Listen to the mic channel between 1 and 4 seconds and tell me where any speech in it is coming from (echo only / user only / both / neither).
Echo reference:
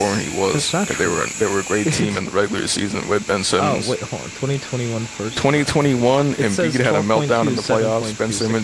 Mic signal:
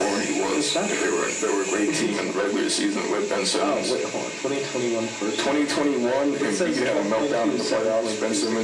echo only